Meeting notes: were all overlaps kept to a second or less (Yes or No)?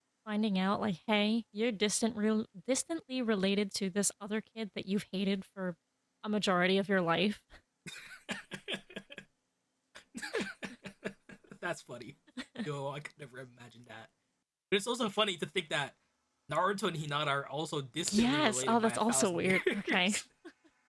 No